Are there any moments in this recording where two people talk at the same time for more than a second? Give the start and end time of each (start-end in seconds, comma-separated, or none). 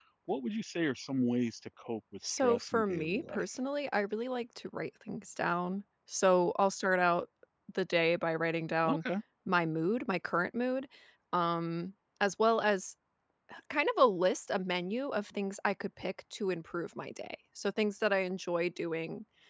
2.2-3.4